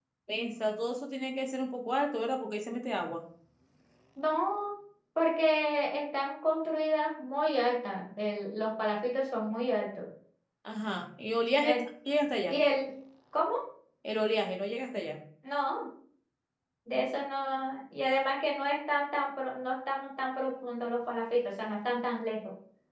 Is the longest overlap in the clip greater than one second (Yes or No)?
No